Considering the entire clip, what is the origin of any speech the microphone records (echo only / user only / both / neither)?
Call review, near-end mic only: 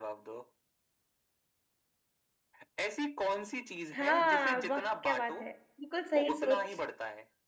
both